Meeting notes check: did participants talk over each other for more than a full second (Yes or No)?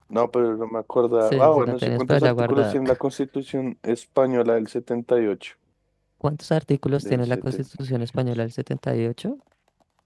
Yes